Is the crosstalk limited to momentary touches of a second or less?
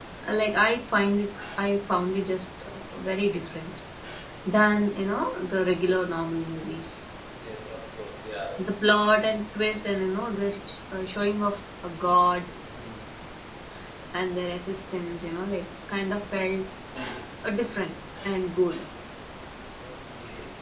Yes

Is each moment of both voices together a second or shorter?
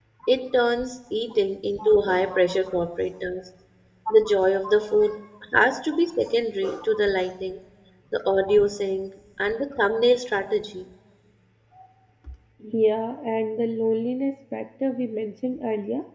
Yes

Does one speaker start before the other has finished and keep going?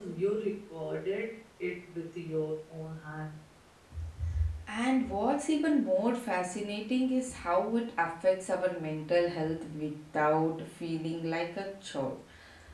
No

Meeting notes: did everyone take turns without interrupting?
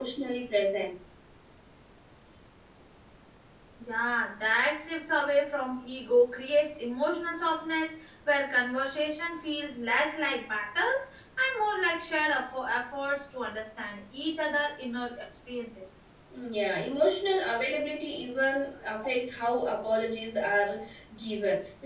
Yes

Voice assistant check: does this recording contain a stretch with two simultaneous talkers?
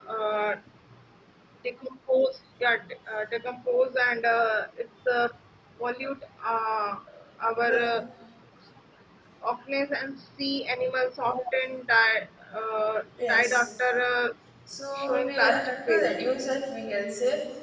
Yes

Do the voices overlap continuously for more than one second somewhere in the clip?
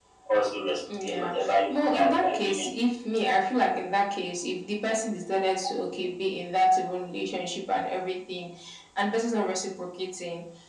Yes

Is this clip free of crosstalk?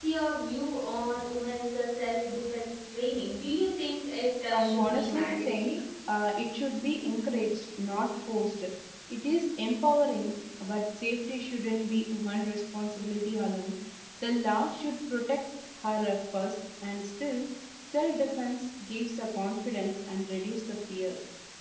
No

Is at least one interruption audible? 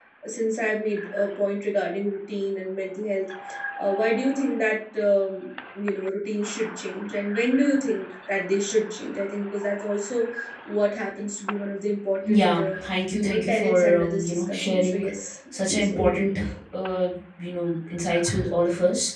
Yes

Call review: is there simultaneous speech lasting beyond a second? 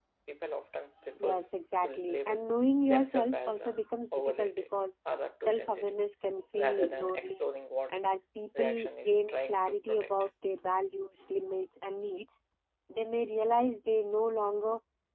Yes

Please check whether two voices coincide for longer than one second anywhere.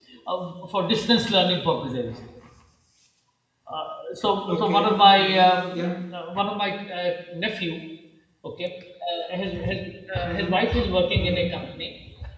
Yes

